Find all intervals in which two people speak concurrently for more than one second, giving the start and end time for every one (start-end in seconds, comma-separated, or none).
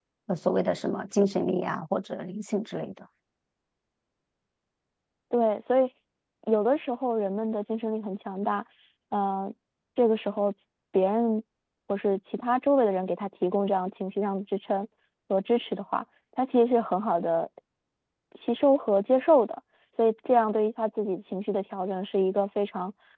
none